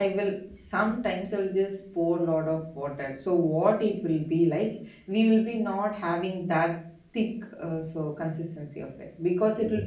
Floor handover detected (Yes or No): No